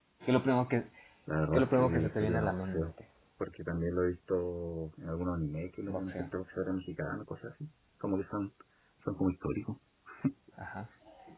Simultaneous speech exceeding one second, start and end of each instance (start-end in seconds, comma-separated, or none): 1.5-2.9